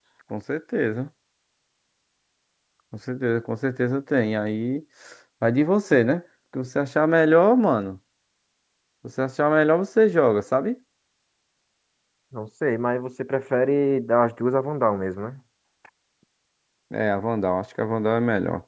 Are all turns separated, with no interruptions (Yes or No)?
Yes